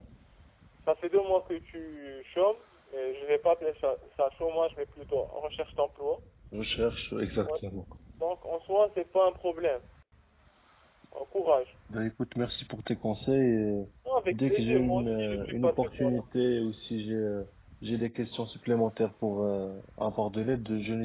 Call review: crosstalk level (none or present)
present